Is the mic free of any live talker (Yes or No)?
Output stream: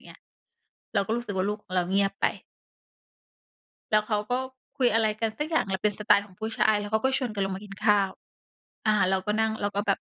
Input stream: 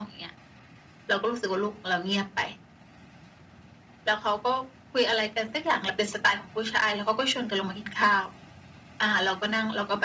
Yes